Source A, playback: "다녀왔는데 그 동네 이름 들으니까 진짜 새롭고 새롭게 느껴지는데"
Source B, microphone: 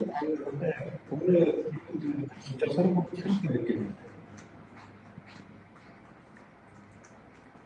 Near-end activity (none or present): none